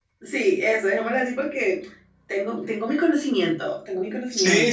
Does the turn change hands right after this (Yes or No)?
Yes